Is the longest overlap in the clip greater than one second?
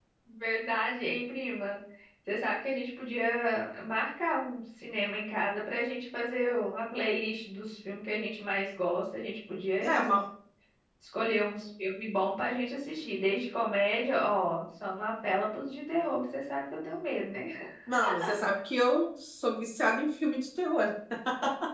No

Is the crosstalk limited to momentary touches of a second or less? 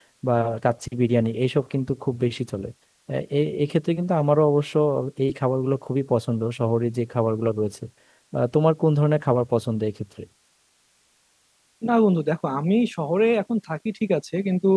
Yes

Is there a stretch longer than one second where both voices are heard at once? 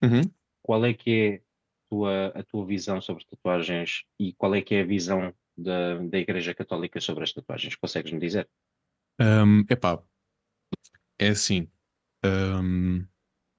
No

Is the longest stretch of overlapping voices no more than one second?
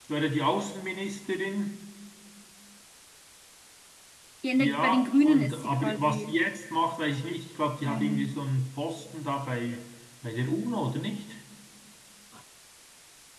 No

